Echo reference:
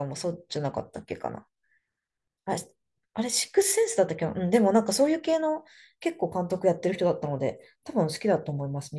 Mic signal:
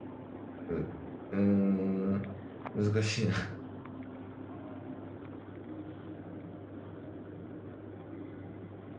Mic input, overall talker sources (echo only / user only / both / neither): user only